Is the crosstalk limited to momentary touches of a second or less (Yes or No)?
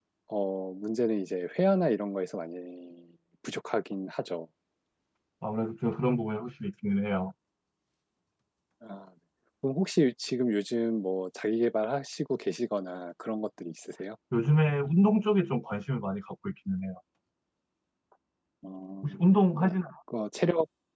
Yes